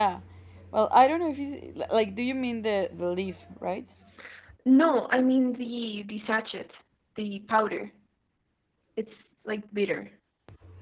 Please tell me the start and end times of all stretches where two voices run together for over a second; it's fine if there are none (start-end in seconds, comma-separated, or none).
none